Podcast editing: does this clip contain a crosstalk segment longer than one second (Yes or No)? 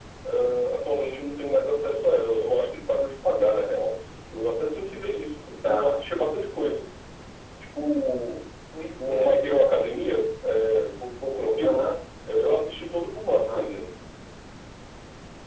No